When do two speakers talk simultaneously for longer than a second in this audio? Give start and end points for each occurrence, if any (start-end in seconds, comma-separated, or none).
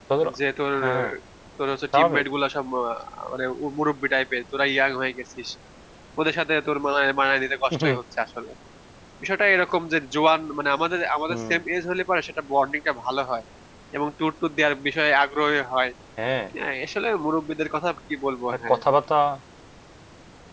none